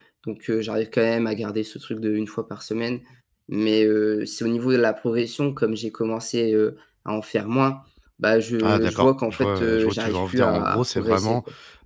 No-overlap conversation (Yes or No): No